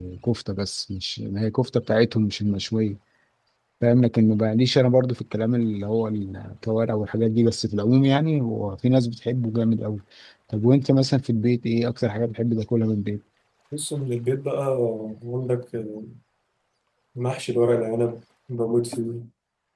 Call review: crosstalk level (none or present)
none